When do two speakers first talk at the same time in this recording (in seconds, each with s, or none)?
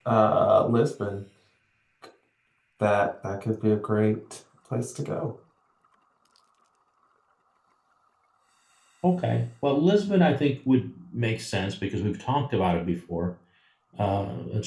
none